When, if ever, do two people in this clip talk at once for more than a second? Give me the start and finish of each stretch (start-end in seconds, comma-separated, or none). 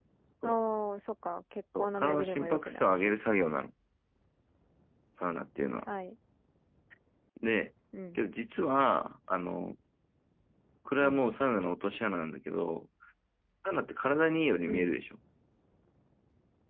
1.8-3.1